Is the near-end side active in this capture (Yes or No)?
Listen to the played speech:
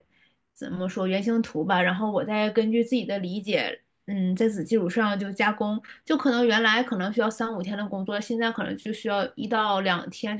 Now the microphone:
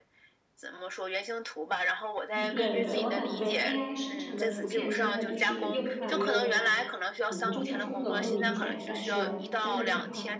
Yes